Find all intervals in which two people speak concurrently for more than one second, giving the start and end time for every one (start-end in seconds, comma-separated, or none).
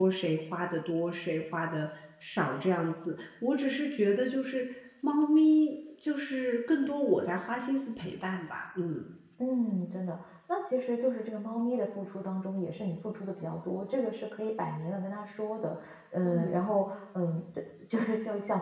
none